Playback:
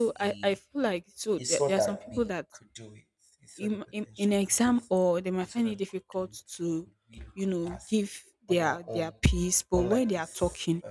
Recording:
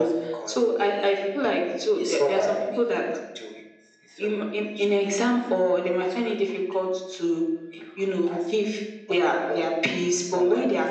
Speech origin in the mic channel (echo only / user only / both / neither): echo only